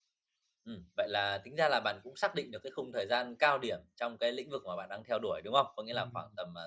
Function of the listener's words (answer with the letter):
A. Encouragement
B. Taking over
A